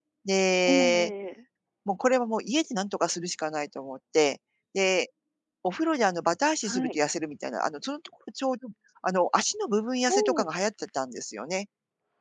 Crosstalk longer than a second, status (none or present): none